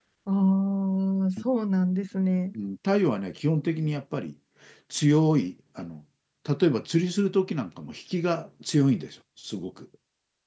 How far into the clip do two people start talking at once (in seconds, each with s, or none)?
none